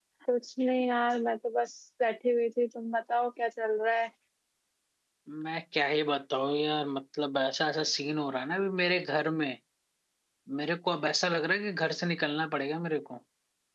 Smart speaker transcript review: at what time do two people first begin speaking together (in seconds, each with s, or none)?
none